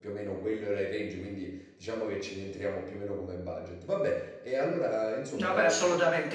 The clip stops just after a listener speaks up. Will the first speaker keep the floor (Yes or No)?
No